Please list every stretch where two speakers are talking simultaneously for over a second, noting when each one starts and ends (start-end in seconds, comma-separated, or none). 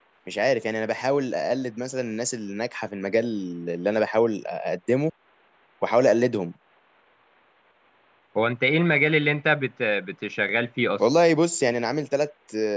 none